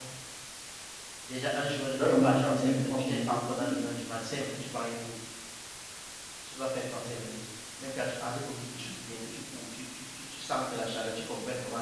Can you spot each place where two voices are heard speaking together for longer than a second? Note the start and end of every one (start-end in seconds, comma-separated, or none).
1.9-3.8